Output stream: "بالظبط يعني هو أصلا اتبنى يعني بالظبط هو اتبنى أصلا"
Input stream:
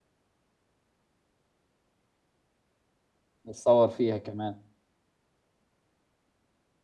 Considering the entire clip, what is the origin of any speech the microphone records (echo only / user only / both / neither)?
user only